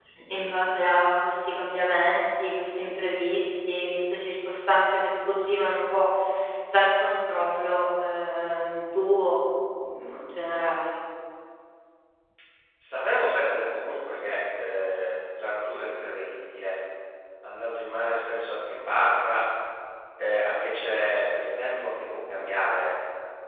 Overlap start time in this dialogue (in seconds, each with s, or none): none